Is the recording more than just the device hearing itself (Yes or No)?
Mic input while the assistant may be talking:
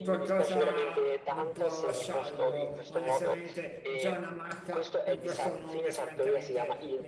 Yes